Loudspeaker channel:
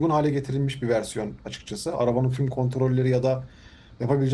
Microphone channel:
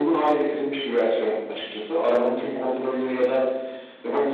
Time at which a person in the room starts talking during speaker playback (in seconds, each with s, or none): none